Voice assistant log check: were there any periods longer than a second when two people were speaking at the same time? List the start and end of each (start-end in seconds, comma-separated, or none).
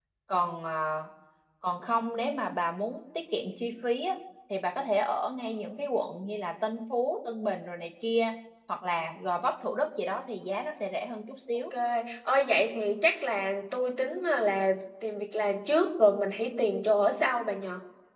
none